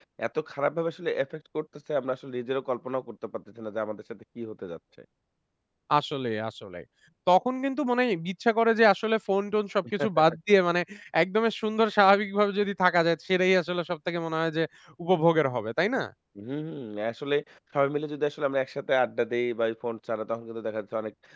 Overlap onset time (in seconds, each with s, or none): none